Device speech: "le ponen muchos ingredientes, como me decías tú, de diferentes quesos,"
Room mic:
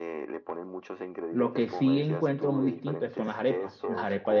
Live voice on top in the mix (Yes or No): Yes